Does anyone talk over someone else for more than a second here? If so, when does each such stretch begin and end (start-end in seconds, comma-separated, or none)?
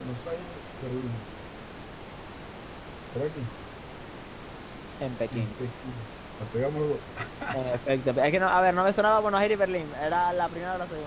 none